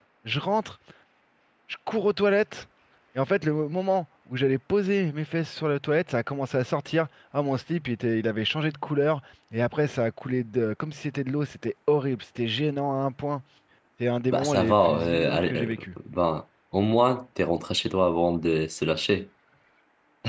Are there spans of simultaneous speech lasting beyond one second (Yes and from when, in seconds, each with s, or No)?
Yes, from 14.3 s